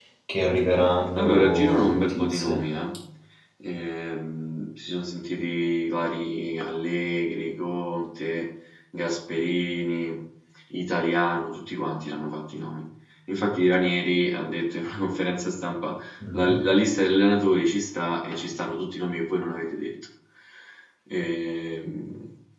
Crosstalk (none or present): present